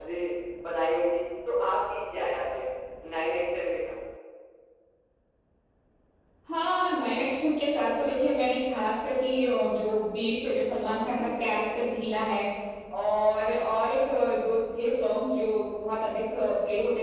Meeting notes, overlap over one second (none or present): none